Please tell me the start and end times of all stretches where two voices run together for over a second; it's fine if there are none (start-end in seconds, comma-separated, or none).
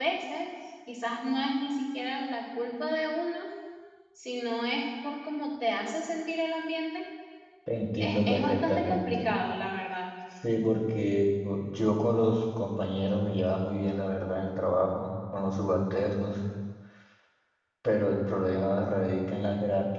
8.0-9.3